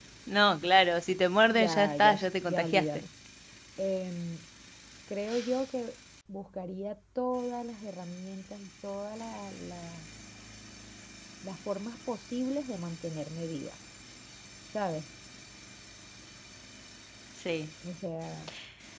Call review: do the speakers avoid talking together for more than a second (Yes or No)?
No